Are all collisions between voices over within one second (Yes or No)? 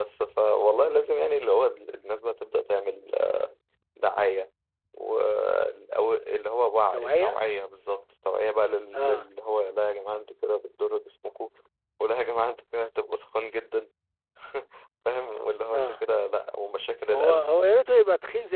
Yes